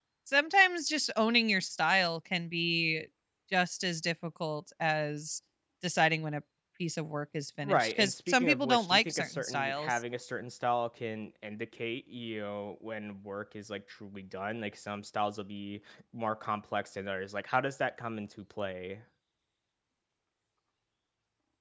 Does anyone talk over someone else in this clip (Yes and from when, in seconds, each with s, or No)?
Yes, from 7.6 s